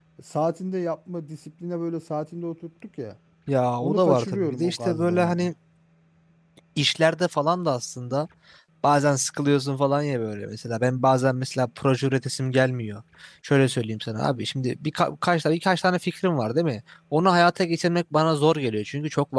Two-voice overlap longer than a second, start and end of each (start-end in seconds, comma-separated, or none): 3.8-5.5